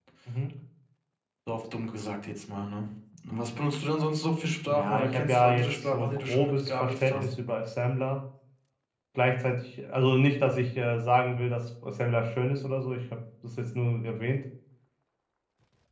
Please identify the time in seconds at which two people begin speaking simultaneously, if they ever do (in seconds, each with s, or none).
4.7 s